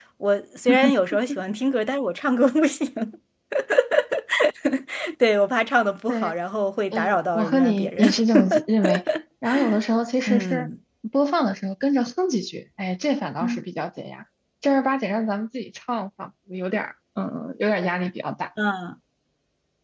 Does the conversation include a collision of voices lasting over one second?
Yes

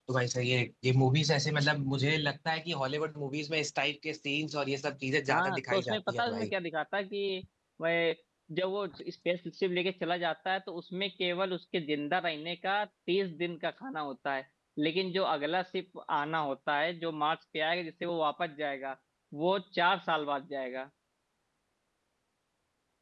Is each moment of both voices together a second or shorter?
No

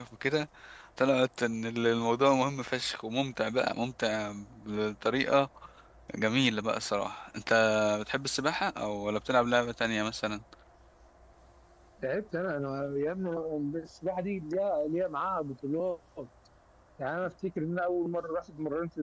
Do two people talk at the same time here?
No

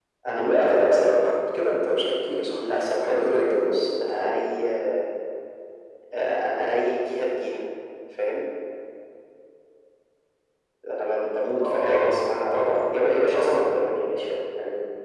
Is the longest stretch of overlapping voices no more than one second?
No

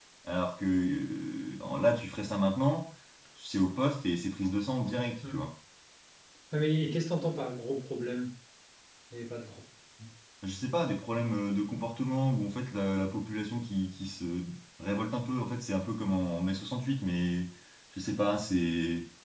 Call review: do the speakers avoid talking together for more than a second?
Yes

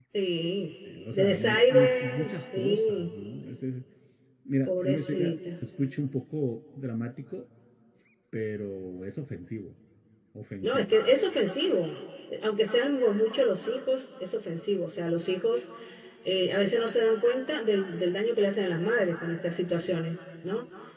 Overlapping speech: Yes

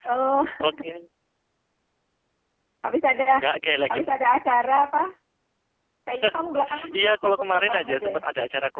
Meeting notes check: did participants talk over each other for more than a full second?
Yes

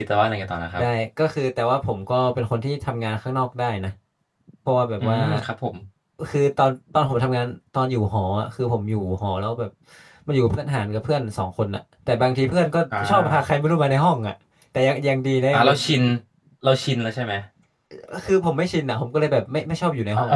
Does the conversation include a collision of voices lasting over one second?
No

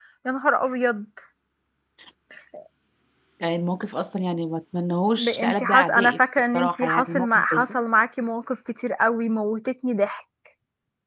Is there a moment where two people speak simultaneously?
Yes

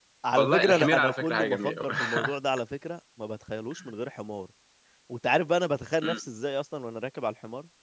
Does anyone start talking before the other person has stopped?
Yes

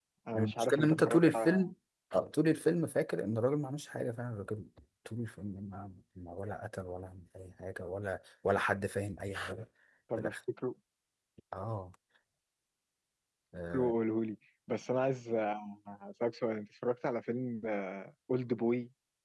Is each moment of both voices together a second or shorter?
No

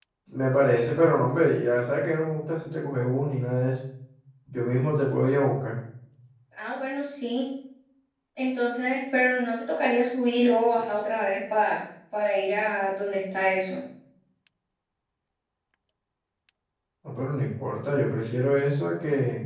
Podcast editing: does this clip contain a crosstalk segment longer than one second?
No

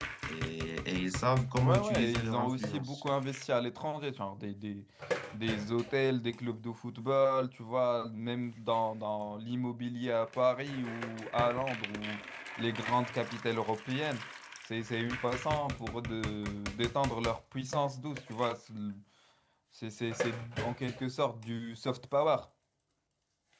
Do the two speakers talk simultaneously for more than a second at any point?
Yes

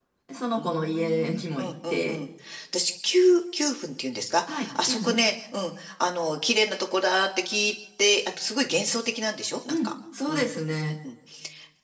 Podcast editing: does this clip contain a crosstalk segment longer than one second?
Yes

